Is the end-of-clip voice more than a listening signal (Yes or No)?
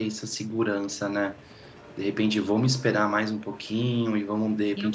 No